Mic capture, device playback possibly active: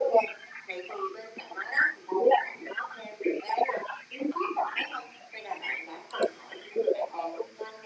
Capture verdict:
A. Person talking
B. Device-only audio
B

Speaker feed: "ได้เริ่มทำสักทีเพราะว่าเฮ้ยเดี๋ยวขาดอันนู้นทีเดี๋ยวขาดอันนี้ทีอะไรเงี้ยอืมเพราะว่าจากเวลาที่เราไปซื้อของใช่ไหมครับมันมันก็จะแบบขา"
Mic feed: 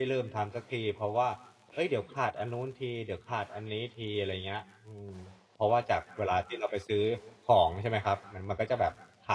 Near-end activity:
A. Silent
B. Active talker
A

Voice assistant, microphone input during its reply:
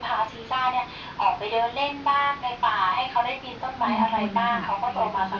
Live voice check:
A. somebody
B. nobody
A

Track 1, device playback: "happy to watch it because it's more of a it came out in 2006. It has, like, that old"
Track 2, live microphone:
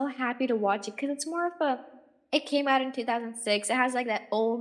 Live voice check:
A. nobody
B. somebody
A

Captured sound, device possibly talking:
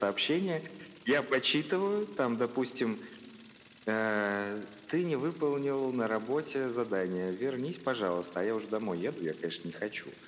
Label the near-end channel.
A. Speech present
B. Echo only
B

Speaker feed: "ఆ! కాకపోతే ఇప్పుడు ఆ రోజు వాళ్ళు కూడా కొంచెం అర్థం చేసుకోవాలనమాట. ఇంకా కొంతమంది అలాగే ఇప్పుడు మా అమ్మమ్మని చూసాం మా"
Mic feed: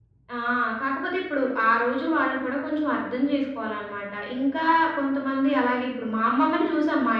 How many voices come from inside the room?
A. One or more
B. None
B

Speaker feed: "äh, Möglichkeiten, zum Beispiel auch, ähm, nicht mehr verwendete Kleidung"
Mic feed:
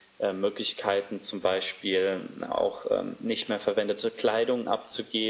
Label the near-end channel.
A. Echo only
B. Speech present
A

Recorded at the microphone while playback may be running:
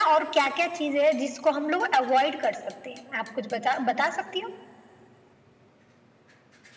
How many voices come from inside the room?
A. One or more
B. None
B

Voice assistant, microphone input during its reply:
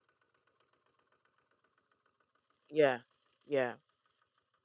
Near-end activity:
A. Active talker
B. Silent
A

